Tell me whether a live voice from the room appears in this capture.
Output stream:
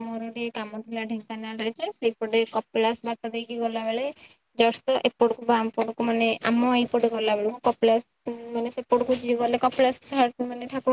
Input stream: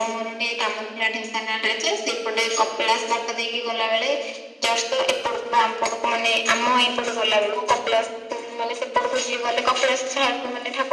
No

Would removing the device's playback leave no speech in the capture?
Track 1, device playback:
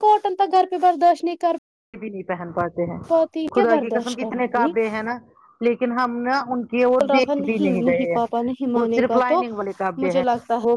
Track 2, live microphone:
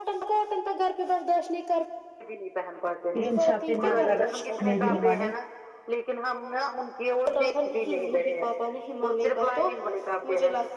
No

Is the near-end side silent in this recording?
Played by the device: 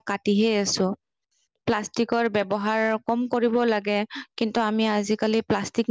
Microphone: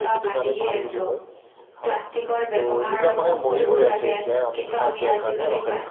No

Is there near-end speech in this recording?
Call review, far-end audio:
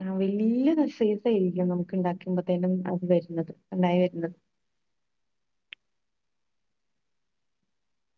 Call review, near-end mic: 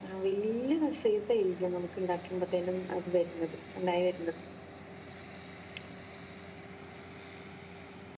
No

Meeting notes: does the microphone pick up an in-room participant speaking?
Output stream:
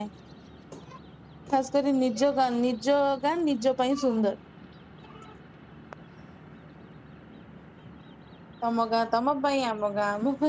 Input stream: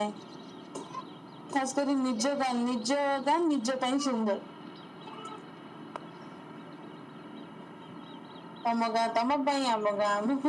No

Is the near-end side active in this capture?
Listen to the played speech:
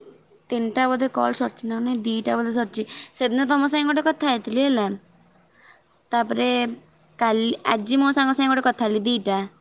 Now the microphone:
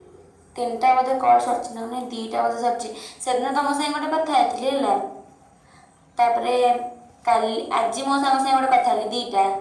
No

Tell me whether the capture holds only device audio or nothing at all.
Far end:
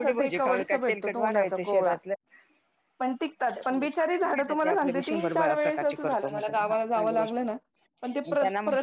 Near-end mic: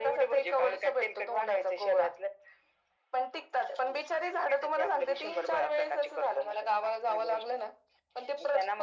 Yes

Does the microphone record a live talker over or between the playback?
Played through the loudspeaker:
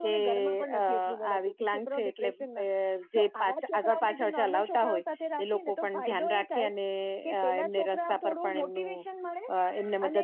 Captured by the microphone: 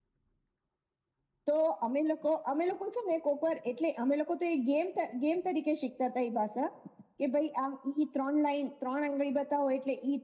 Yes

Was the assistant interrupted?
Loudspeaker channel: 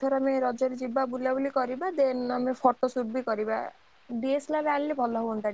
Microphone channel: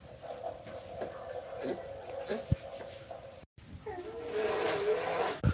No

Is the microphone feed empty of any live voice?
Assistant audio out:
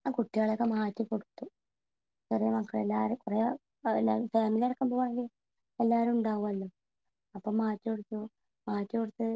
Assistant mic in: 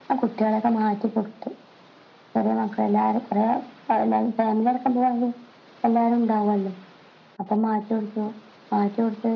Yes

